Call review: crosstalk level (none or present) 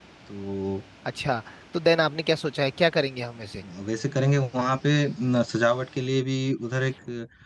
none